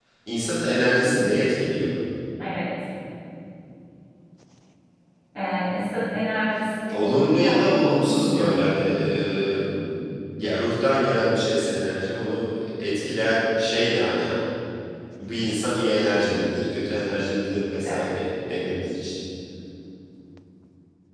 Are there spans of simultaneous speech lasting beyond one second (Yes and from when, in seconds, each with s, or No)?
Yes, from 6.9 s